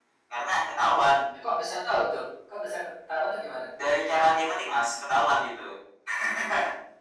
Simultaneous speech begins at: none

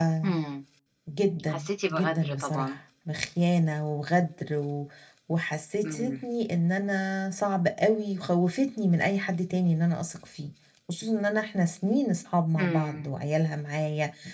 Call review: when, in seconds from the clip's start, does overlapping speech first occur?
1 s

